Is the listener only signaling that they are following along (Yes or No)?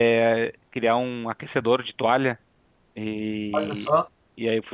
Yes